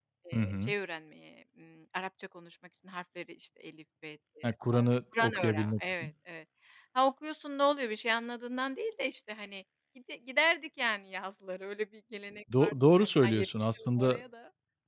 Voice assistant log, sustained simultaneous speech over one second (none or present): present